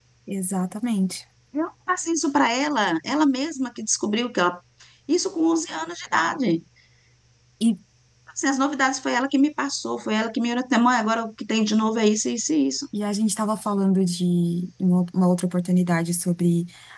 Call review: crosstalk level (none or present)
none